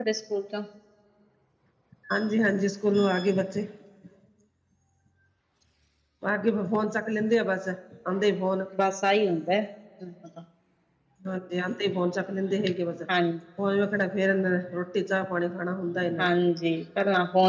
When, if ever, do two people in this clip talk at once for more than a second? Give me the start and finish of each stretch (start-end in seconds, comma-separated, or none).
none